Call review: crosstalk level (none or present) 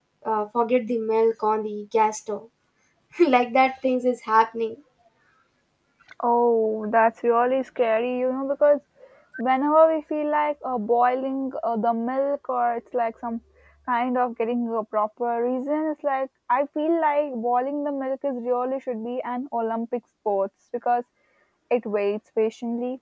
none